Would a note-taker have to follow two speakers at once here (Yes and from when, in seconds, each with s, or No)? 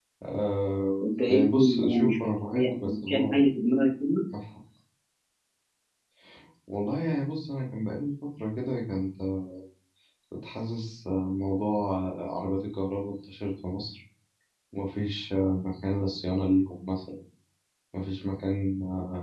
Yes, from 1.0 s